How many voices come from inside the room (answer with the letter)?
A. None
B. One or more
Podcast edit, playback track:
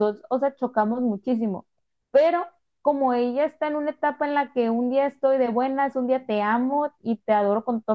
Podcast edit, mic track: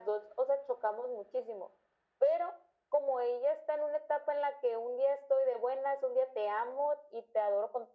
A